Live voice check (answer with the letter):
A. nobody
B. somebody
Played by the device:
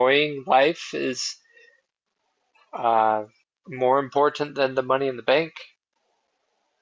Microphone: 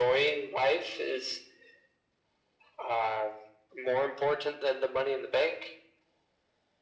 A